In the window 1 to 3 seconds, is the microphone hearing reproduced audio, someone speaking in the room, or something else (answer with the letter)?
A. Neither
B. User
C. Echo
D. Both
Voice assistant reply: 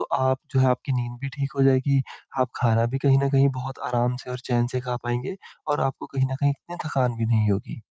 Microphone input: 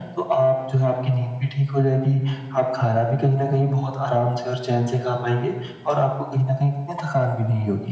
C